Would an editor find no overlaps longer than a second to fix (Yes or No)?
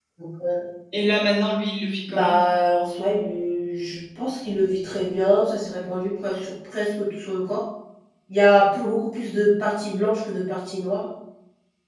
Yes